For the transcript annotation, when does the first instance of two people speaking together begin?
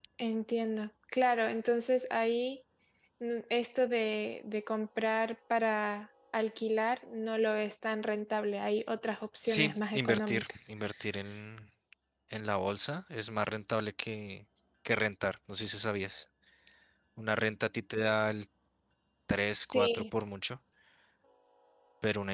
9.5 s

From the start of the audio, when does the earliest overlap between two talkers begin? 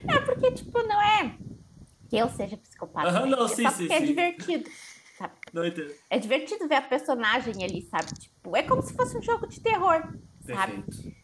3.0 s

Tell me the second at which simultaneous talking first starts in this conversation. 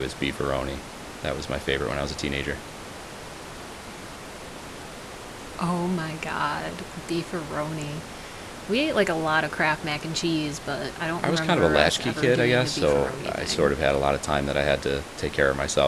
11.2 s

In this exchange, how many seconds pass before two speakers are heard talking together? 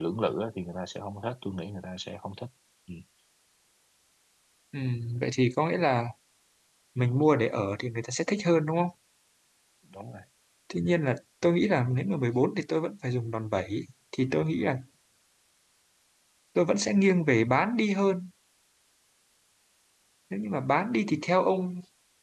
none

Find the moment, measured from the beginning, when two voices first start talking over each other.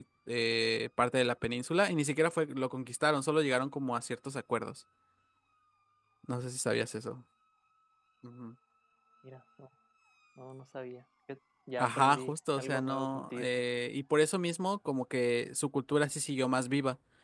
11.8 s

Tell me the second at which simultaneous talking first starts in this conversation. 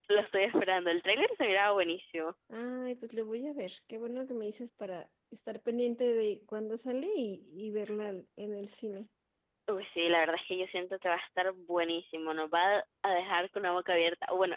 none

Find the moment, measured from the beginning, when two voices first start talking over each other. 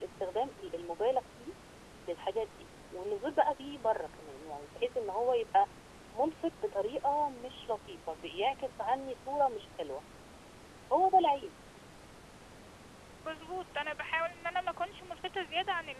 none

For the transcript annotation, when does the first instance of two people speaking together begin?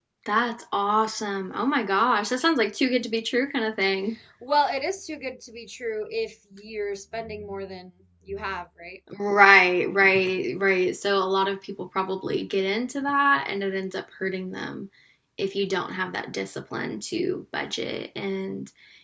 none

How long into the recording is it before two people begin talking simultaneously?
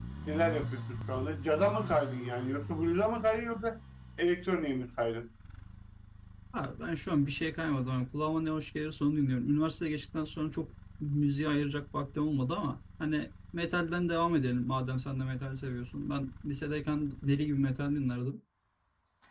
none

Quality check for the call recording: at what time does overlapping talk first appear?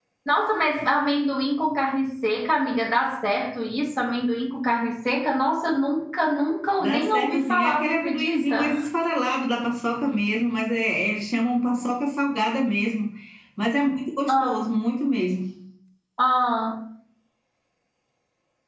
6.8 s

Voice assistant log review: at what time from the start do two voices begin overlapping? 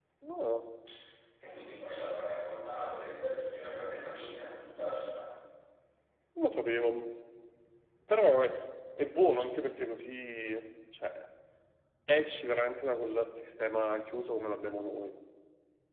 none

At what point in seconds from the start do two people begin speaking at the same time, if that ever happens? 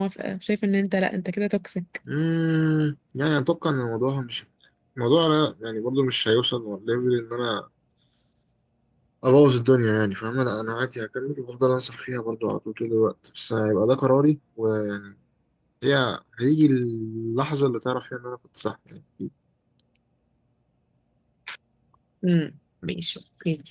none

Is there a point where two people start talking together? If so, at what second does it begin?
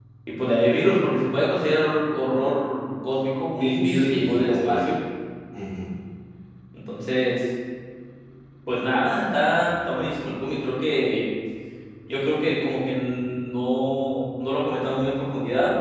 3.4 s

